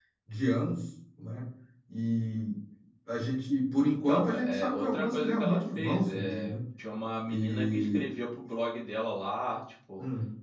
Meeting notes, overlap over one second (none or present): present